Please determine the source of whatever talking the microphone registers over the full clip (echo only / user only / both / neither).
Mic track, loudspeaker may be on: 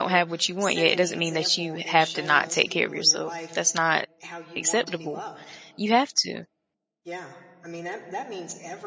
both